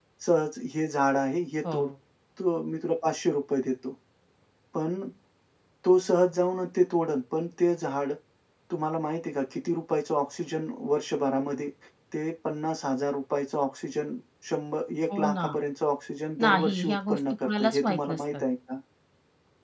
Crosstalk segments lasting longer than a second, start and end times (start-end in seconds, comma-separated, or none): 16.4-18.4